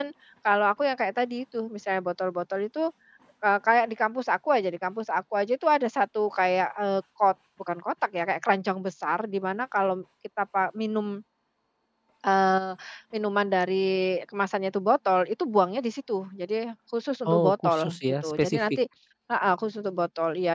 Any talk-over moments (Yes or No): Yes